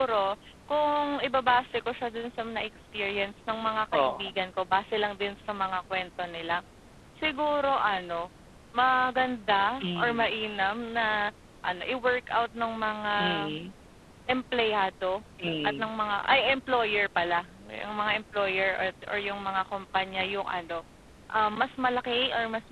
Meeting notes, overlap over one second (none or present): none